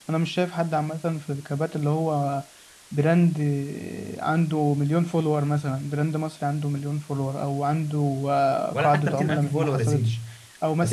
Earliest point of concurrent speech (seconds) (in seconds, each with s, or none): 8.7 s